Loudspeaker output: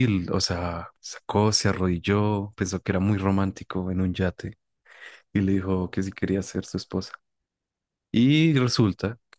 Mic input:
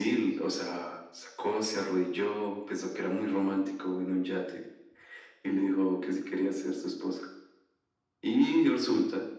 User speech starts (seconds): none

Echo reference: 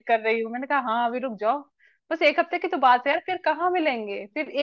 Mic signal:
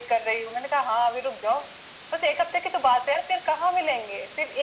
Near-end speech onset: none

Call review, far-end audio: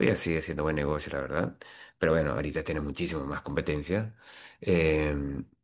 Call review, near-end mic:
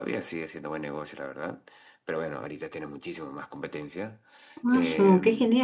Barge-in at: 4.6 s

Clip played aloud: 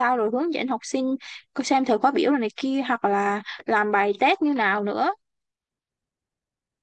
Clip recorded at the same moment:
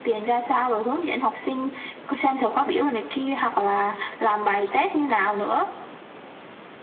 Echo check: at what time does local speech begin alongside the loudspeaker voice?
none

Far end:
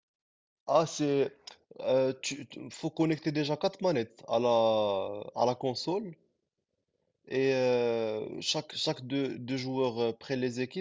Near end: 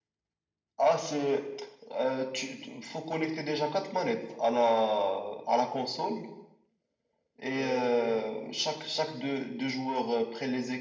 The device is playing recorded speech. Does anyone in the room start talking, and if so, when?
7.6 s

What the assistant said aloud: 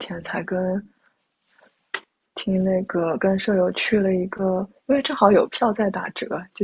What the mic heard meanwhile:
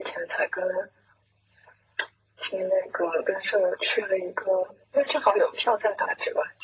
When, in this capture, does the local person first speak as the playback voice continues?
none

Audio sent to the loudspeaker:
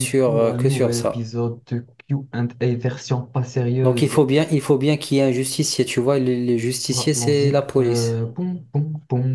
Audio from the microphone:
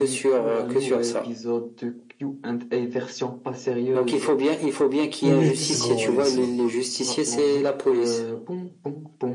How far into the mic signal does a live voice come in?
5.2 s

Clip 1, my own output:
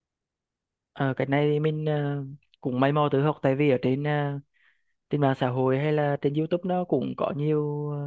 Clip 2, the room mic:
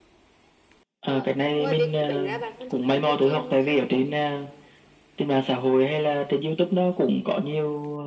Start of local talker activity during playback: 1.1 s

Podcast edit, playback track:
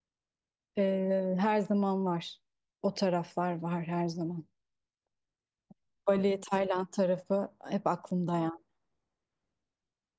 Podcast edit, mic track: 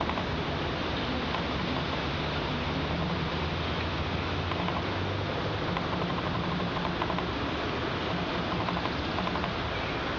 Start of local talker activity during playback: none

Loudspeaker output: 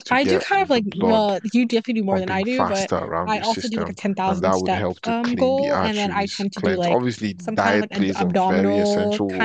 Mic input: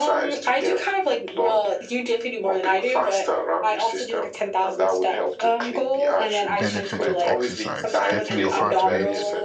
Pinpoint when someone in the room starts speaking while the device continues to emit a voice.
6.5 s

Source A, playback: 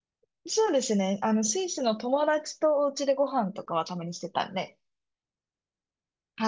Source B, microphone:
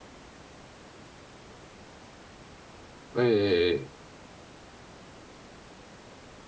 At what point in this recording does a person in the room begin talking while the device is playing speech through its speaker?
3.2 s

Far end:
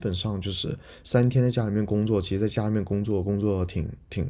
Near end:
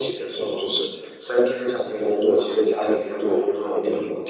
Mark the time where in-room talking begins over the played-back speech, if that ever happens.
none

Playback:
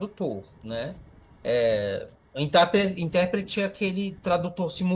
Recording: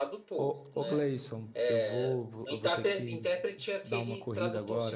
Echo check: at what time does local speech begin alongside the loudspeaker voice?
0.3 s

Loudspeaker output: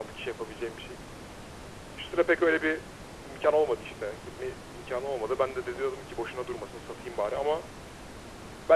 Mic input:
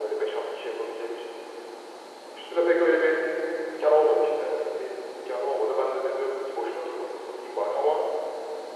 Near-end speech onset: none

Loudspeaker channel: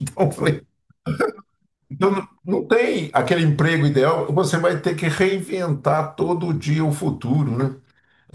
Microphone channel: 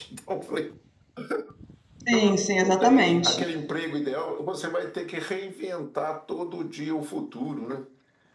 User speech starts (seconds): 2.1 s

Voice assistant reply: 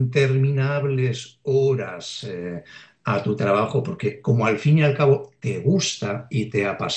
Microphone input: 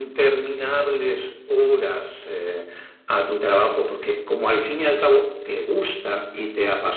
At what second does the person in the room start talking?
none

